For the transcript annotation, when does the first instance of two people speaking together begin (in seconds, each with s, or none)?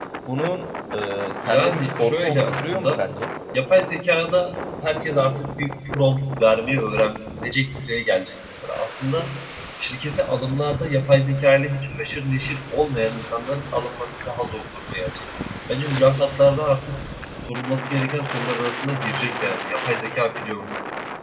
1.4 s